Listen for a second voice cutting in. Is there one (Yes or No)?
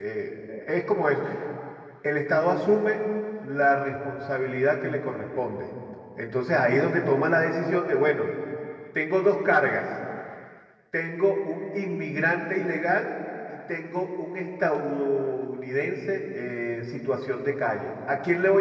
No